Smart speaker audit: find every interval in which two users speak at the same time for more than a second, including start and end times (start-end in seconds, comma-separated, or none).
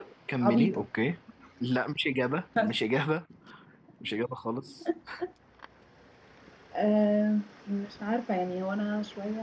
none